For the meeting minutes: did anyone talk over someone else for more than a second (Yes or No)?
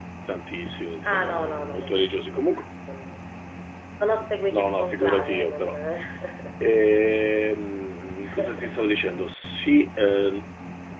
Yes